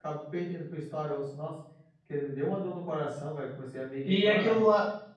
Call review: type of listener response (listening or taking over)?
taking over